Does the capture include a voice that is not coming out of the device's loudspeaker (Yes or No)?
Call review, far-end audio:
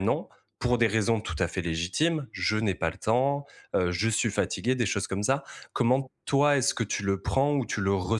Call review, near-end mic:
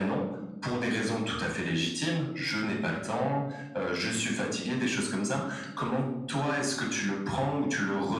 No